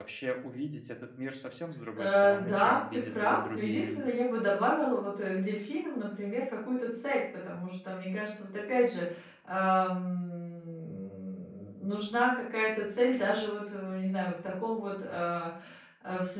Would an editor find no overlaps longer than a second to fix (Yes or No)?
No